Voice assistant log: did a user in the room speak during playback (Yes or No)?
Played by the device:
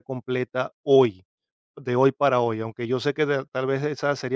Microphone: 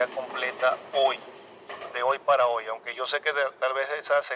No